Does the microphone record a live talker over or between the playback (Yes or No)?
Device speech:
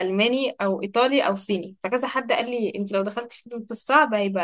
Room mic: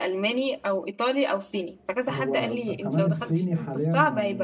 Yes